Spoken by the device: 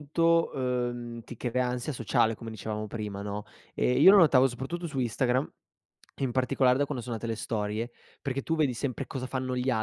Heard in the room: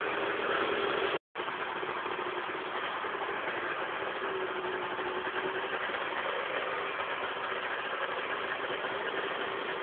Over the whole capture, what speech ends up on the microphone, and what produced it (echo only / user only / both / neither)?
neither